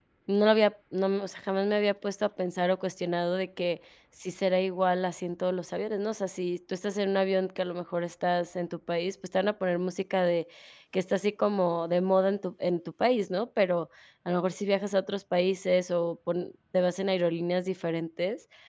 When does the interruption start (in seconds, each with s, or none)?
none